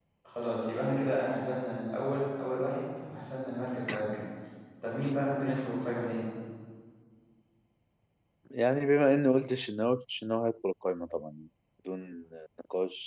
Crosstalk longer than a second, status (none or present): none